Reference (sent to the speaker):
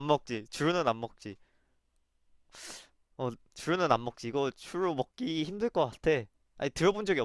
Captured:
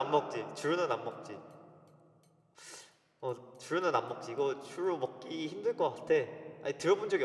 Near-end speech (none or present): none